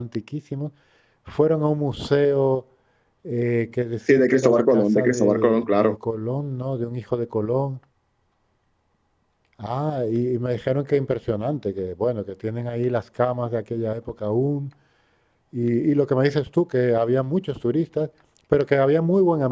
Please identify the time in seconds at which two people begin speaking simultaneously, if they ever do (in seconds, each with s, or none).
4.1 s